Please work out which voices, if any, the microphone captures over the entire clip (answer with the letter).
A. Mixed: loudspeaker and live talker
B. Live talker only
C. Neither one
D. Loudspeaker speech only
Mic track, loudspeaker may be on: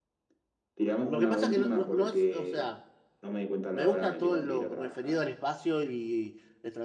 A